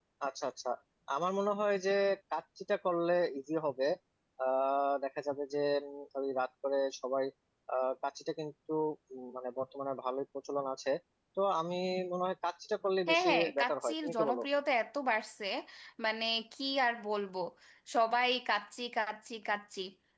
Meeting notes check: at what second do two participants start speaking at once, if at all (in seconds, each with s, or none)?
13.1 s